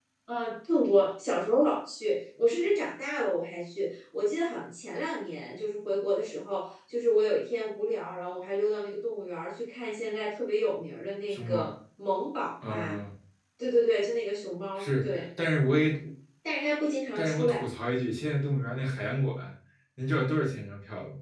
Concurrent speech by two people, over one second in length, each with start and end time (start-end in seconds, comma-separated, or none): none